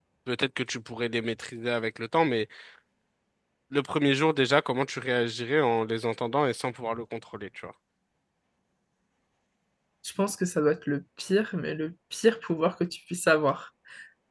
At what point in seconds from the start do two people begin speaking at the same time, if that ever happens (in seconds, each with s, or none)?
none